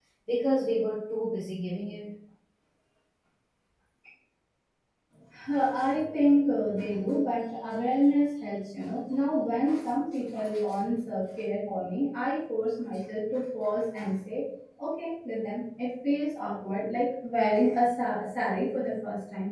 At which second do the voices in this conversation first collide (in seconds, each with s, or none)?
none